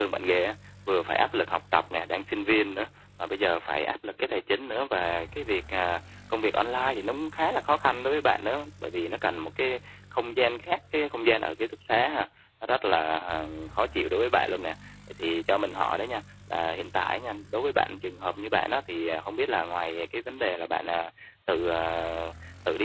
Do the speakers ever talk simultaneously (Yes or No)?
No